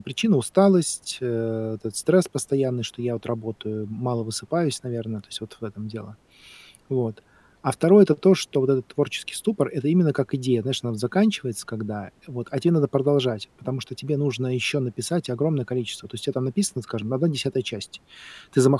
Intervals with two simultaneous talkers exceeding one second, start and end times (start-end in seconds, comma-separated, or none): none